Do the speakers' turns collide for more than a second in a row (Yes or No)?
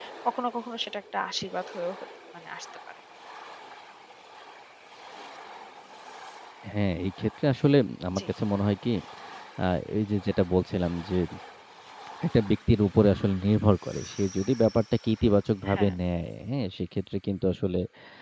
No